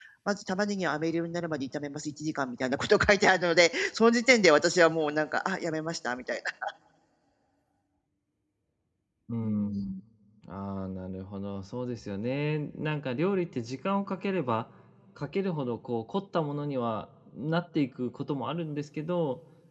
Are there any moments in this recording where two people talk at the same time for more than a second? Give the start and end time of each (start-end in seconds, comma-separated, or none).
none